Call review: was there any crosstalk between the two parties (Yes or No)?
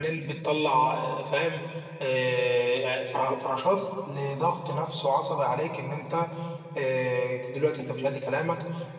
No